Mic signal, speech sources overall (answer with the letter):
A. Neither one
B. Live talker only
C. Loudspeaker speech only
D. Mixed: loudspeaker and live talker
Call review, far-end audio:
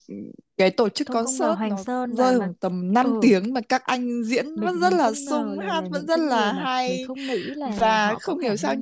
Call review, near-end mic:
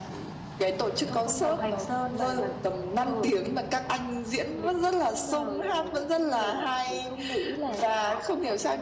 C